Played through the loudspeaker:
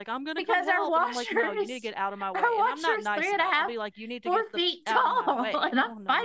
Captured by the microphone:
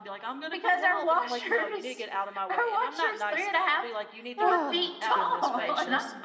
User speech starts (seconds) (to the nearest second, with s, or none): 4 s